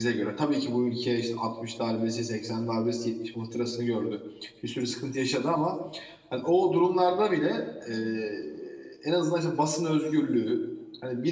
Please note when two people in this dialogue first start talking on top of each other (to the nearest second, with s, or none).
none